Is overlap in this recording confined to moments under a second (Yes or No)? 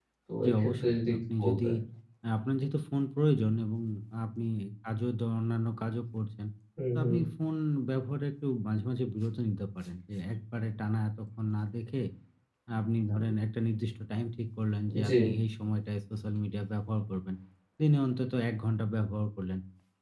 No